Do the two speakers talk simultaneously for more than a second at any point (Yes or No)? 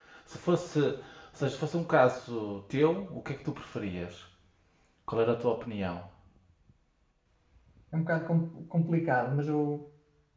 No